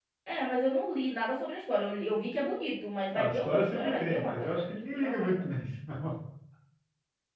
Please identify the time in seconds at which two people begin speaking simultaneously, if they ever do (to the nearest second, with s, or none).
3 s